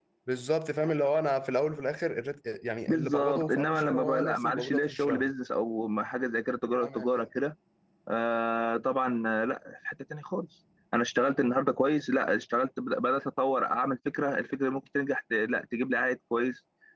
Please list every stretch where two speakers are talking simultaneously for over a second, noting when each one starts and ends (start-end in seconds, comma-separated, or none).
2.9-5.3